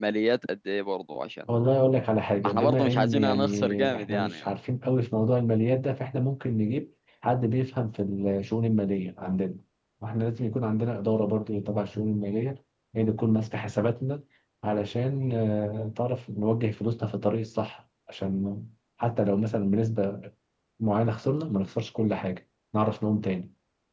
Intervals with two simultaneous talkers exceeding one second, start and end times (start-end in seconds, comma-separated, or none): 2.4-4.4